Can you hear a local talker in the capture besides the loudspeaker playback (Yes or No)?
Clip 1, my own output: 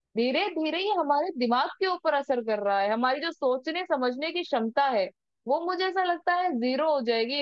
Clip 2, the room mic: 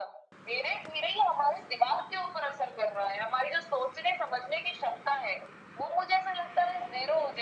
No